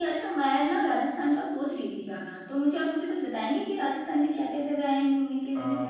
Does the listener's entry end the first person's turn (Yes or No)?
Yes